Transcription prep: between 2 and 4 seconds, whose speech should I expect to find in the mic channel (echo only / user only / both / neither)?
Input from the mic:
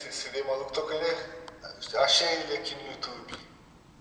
echo only